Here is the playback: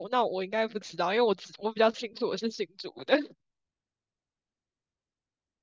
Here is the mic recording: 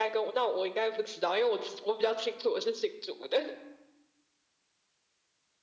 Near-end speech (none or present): none